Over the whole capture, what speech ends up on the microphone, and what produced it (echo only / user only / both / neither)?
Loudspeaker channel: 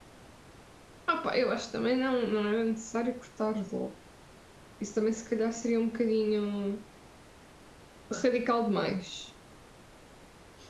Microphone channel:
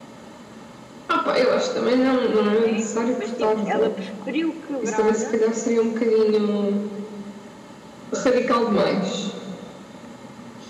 both